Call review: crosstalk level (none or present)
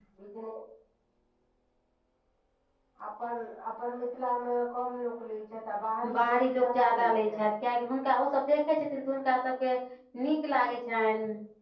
present